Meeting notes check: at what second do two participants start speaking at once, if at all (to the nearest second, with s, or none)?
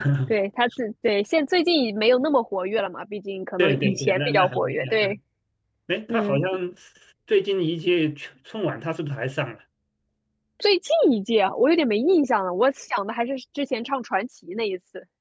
4 s